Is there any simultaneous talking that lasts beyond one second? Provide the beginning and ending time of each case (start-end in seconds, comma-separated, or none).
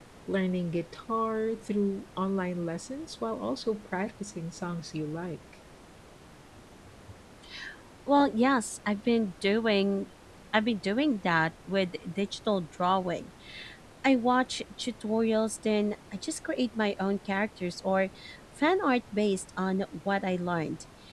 none